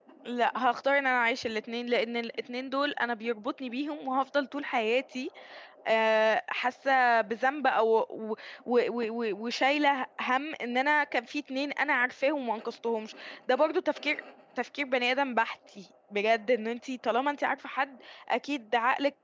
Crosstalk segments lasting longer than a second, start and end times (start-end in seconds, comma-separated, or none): none